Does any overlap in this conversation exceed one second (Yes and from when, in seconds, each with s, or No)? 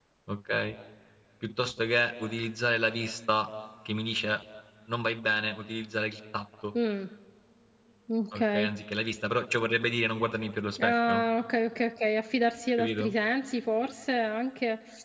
No